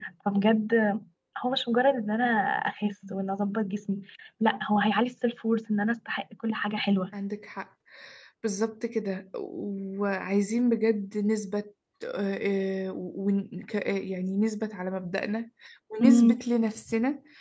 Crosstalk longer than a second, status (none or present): none